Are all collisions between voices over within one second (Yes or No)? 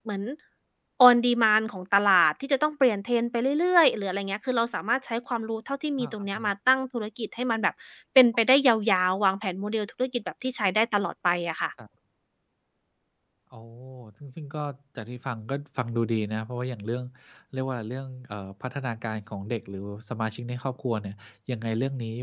Yes